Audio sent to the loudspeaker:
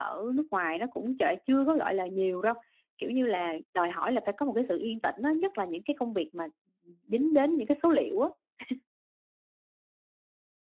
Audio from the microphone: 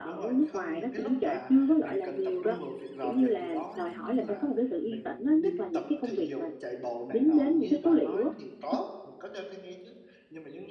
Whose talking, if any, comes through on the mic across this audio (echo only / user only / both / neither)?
both